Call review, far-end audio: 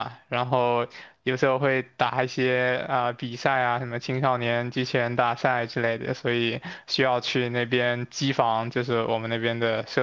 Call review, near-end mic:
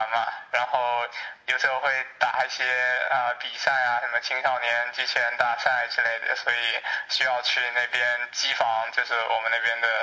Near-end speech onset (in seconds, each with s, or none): none